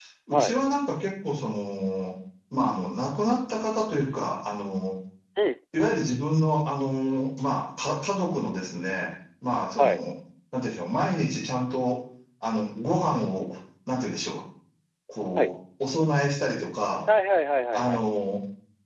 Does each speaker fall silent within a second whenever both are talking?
Yes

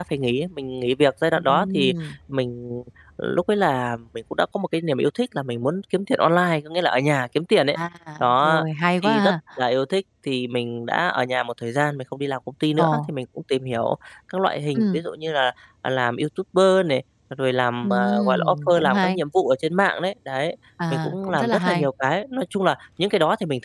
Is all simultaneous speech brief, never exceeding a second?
No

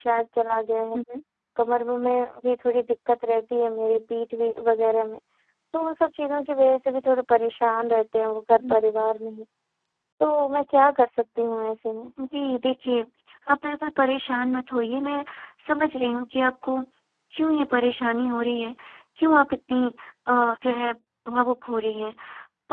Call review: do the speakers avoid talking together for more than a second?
Yes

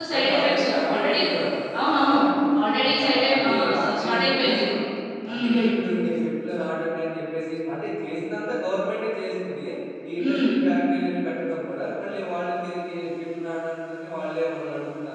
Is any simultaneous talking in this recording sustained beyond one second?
Yes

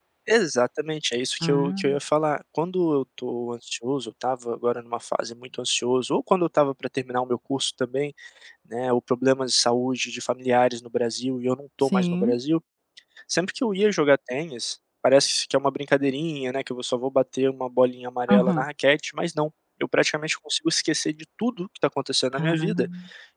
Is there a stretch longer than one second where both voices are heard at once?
No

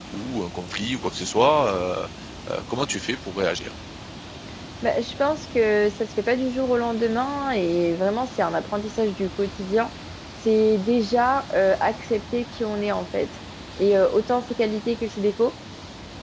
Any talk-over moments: No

